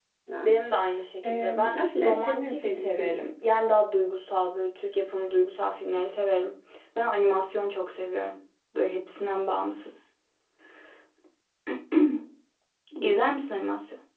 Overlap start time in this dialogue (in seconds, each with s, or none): 1.2 s